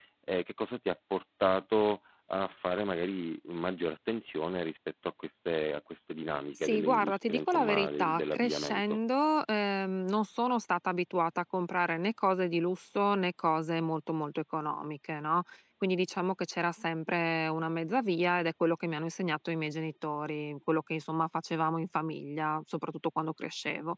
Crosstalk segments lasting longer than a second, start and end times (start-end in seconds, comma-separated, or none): 6.5-9.0